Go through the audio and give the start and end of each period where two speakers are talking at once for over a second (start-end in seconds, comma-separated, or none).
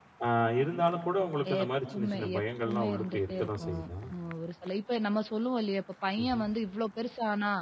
1.6-3.9